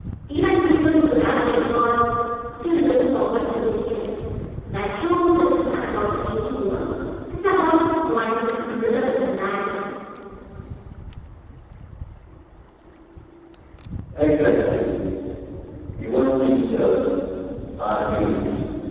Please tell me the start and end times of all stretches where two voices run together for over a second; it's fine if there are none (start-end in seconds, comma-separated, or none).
none